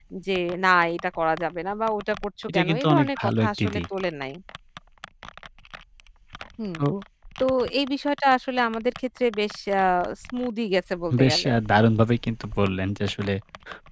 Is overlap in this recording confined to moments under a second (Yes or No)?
No